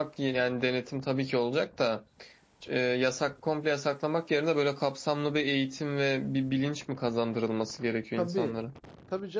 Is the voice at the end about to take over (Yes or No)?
Yes